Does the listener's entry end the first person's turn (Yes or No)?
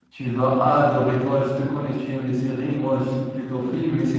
No